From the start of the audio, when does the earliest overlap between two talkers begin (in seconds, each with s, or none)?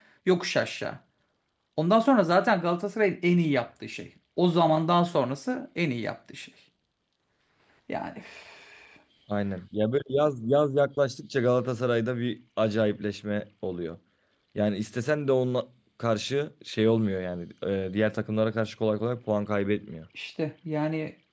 none